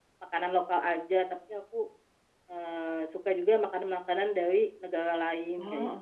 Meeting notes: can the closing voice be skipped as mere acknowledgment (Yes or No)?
No